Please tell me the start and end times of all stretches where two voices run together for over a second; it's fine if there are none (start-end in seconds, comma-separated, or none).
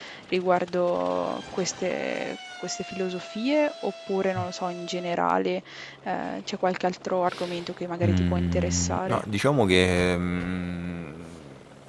8.0-9.2